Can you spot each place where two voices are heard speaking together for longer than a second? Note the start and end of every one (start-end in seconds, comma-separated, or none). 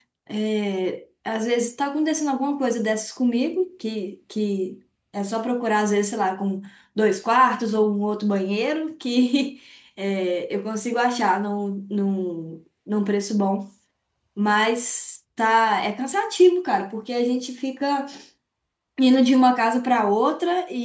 none